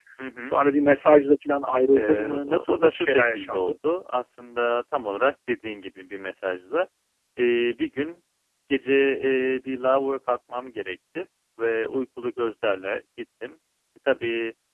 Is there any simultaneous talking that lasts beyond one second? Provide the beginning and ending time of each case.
1.9-3.7

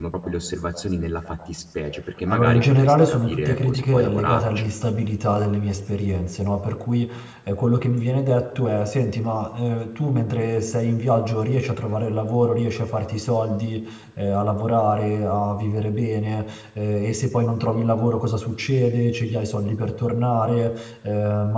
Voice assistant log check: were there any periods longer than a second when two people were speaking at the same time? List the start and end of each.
2.3-4.7

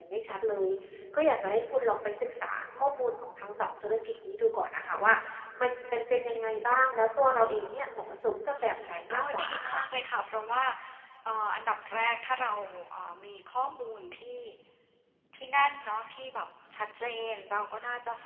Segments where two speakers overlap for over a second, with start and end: 8.6-9.8

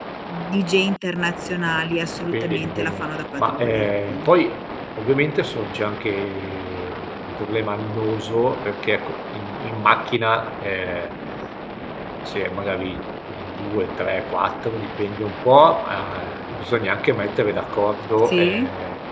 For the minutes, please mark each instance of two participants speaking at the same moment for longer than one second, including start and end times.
2.3-4.2

